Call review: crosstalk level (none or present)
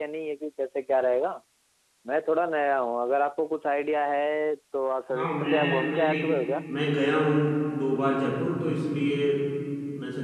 present